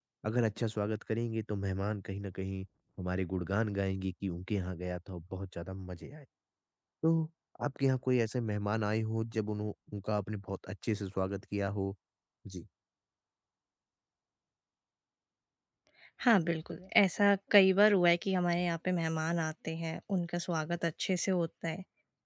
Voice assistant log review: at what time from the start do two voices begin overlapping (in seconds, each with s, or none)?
none